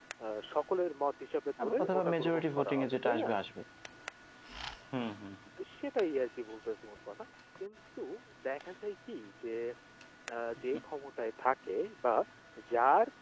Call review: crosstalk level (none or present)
present